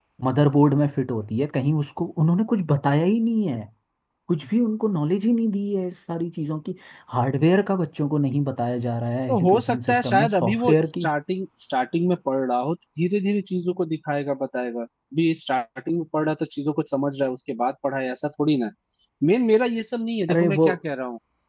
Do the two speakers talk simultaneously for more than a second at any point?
Yes, from 9.3 s

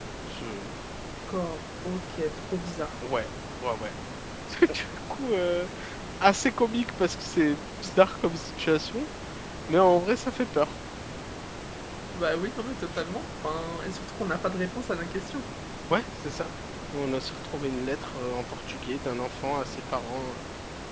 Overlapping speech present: No

